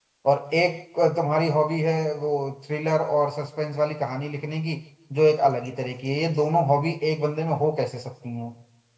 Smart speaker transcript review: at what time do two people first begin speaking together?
none

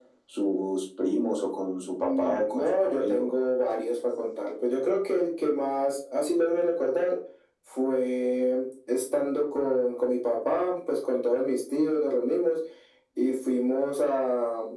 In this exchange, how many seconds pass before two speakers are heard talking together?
2 s

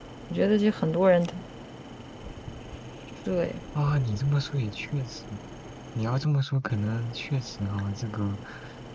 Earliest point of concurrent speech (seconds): none

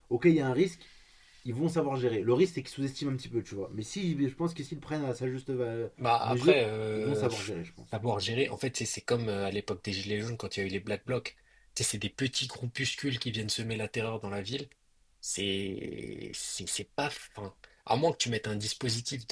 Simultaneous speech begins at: 6 s

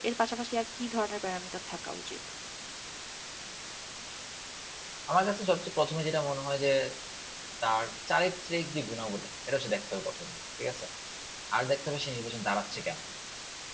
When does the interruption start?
none

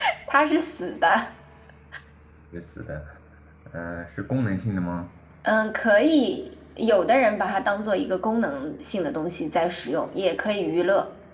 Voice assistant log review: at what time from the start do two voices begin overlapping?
none

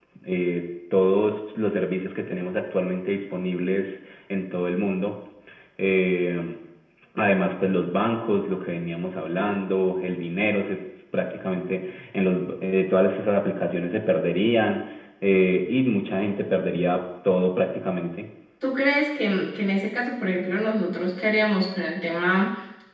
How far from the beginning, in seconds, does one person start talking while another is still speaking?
none

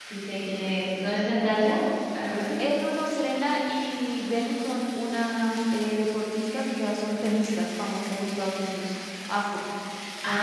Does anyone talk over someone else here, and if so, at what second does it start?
none

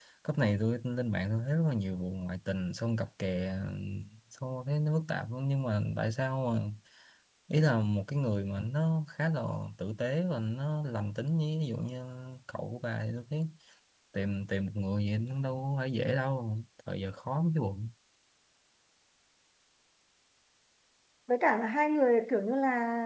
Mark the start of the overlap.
none

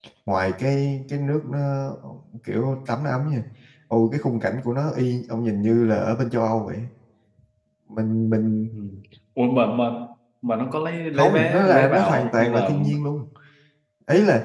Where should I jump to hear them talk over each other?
11 s

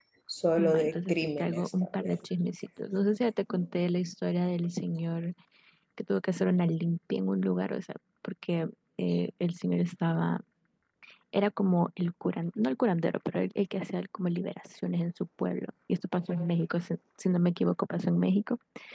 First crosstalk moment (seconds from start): 1 s

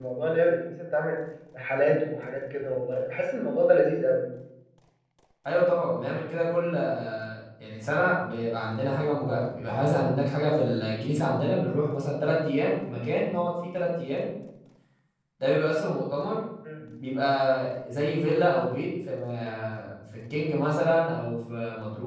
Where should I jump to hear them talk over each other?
none

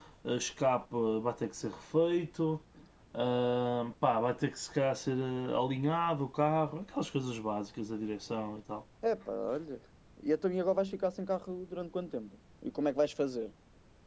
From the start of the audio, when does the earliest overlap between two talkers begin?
none

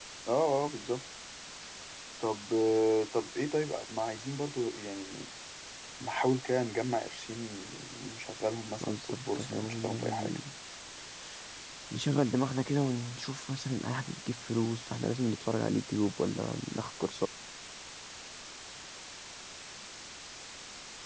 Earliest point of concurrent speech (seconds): 9 s

